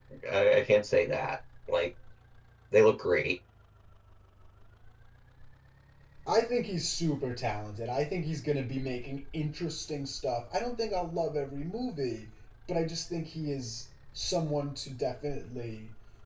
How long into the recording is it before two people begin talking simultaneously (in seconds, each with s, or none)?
none